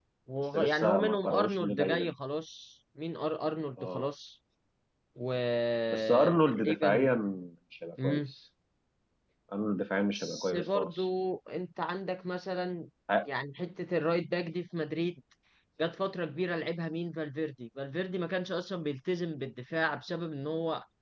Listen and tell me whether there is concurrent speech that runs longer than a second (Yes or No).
Yes